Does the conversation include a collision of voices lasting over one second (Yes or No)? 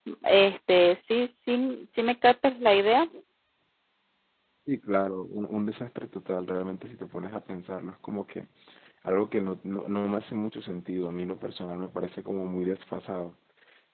No